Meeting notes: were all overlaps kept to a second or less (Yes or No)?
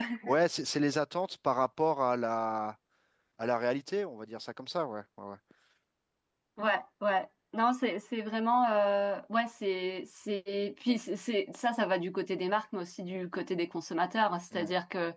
Yes